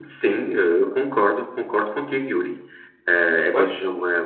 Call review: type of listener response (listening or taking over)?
listening